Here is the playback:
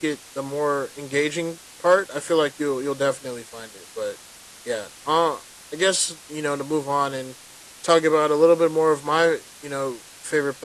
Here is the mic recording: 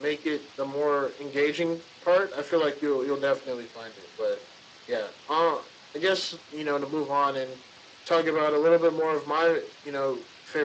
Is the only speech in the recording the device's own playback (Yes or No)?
Yes